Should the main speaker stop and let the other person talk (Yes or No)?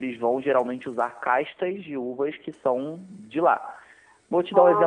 No